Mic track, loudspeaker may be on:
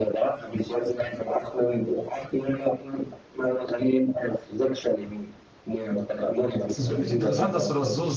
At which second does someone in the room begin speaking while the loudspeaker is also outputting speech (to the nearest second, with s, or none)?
7 s